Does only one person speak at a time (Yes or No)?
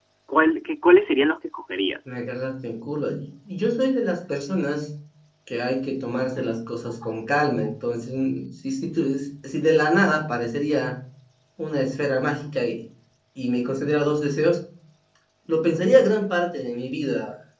Yes